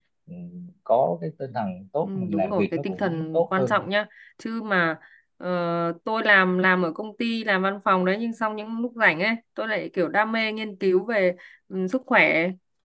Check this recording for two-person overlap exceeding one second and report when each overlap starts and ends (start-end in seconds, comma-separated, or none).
2.0-3.8